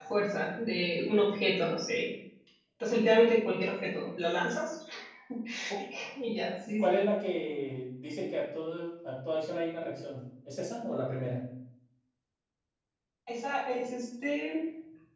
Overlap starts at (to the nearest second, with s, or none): none